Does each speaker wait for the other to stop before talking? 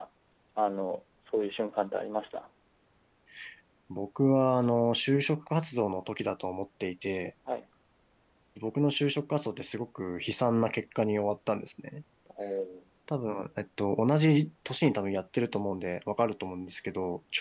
Yes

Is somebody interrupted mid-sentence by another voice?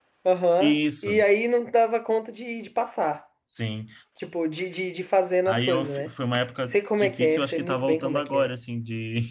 Yes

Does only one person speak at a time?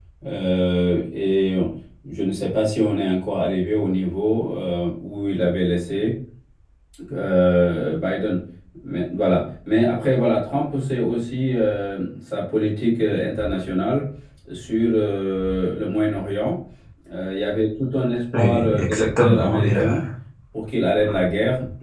No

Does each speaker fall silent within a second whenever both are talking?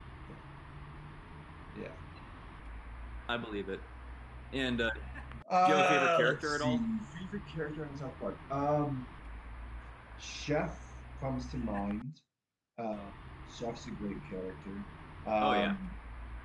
No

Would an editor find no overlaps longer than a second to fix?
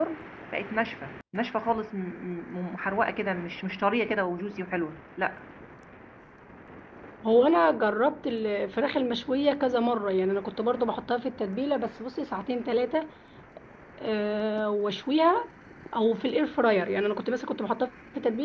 Yes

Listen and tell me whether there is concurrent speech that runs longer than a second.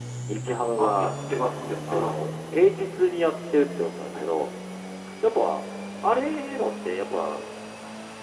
No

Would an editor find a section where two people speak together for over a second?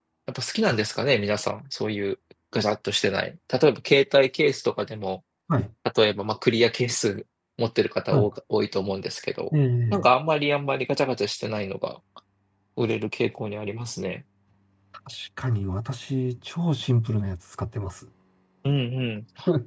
No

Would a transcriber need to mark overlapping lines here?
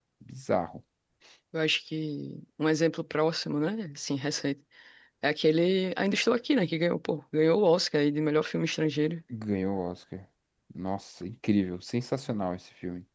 No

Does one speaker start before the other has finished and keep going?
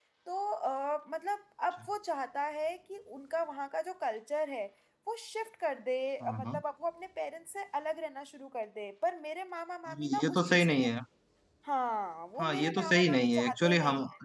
Yes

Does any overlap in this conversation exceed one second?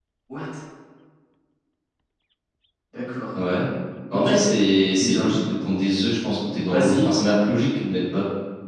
No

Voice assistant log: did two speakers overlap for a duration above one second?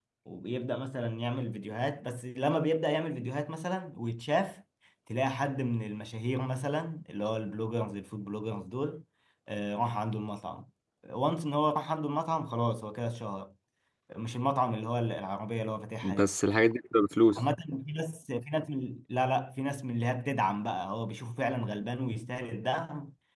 No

